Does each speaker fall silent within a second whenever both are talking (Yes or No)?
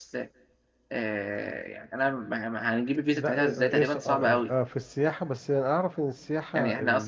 No